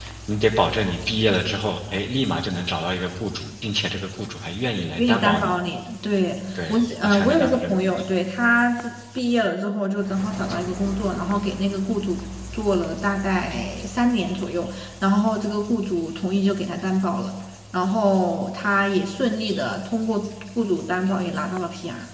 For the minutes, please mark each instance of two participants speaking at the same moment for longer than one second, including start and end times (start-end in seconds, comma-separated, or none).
6.7-8.1